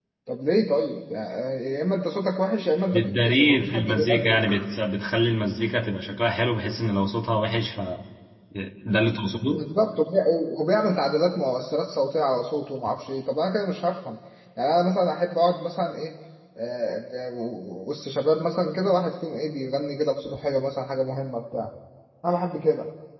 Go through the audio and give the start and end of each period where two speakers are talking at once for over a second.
2.9-4.4

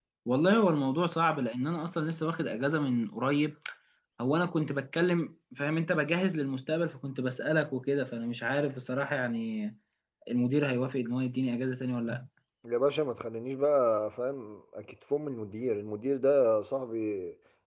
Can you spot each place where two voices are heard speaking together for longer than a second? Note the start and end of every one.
none

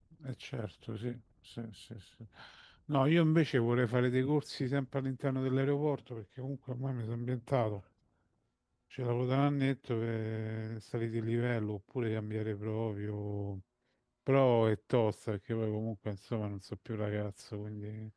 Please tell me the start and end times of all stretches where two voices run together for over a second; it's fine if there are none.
none

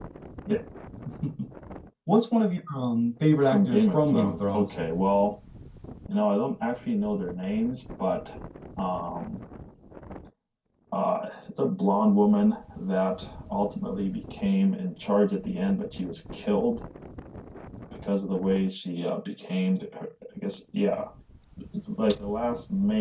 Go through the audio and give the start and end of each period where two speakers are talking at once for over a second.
3.4-4.7

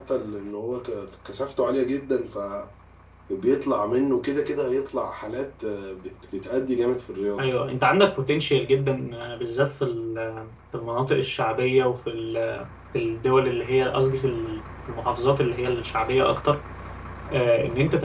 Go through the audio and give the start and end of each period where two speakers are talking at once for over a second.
none

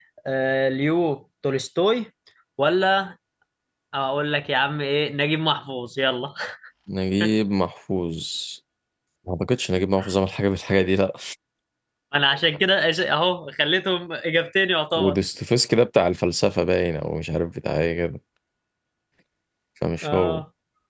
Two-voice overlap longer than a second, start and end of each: none

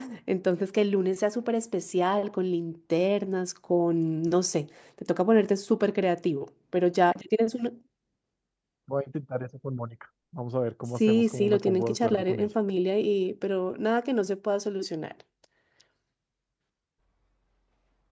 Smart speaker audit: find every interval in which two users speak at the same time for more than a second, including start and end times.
11.0-12.5

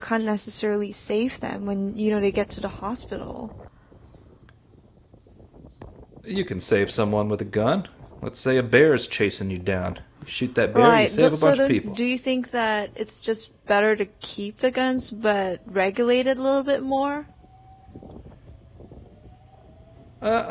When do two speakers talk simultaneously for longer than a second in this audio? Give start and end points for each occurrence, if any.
10.7-12.0

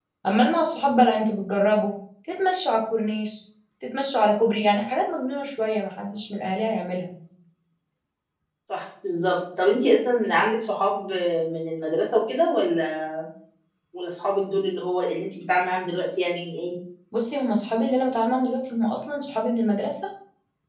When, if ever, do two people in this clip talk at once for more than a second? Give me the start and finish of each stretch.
none

